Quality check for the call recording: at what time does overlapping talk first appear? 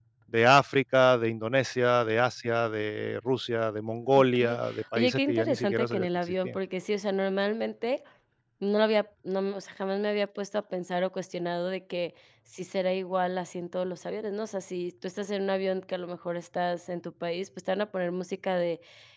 4.3 s

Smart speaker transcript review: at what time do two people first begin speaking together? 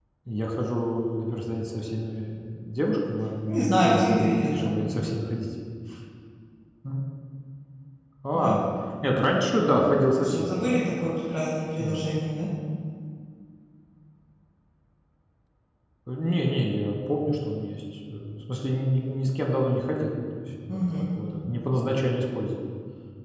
3.5 s

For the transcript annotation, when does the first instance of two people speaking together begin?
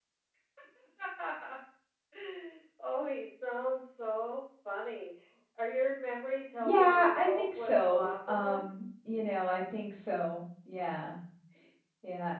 6.6 s

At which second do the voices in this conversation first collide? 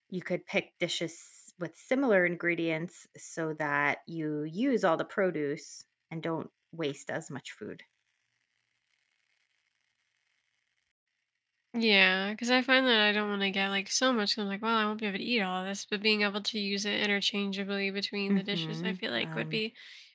18.3 s

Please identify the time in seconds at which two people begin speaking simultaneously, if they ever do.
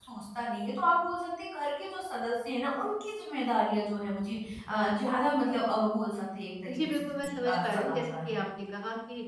6.7 s

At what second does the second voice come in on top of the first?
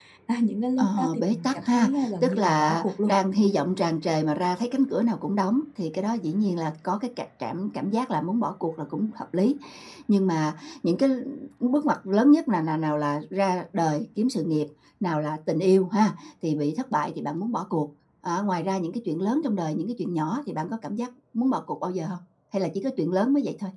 0.8 s

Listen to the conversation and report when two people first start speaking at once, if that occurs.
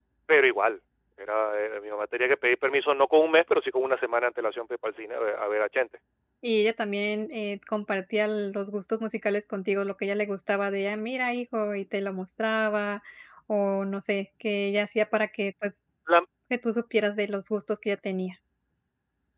none

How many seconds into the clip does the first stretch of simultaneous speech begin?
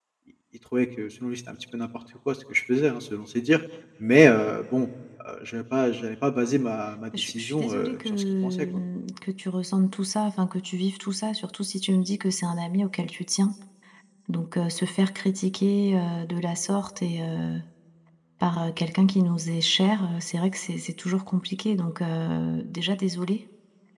7.1 s

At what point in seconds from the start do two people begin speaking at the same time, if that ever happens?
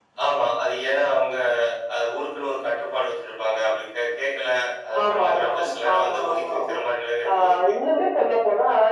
5.1 s

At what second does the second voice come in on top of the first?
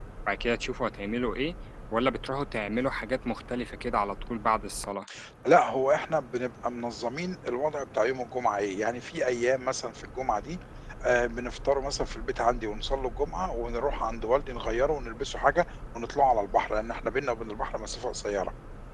none

